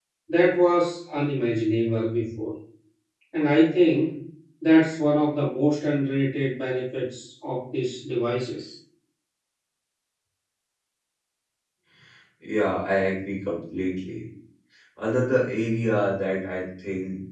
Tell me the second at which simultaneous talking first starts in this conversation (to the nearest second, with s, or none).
none